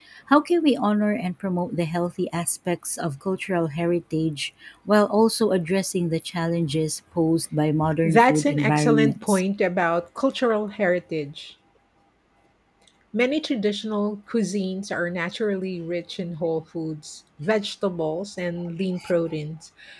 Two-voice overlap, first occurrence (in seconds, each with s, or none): 7.8 s